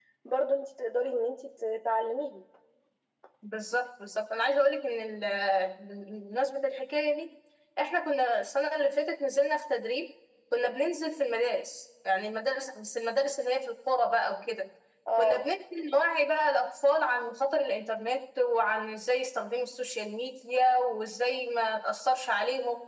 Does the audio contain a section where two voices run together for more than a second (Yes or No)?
No